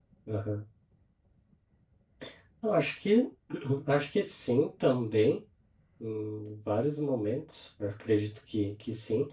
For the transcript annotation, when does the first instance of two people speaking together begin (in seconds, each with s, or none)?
none